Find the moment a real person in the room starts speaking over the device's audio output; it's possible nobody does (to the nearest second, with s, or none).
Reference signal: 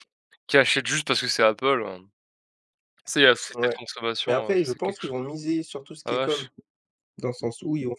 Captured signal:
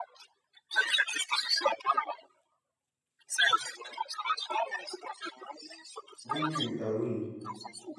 6 s